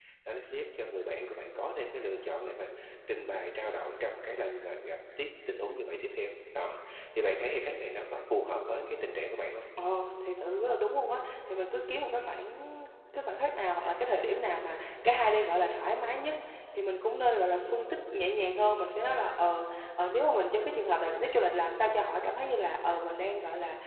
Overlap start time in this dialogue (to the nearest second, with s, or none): none